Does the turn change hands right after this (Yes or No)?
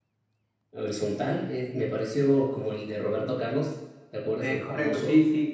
Yes